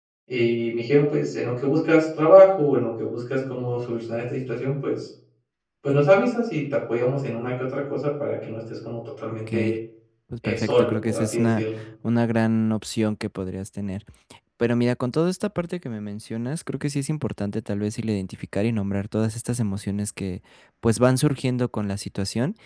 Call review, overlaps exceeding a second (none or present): present